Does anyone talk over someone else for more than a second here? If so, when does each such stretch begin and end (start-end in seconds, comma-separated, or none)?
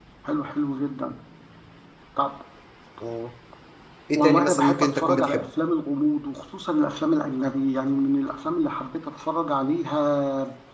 4.2-5.5